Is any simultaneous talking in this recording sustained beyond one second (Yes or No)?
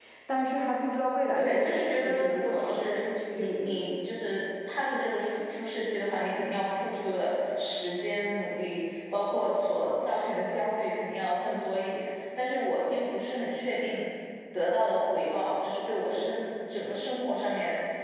Yes